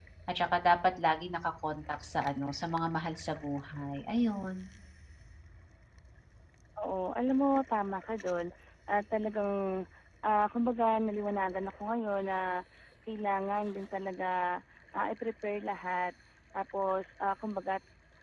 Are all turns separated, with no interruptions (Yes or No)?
Yes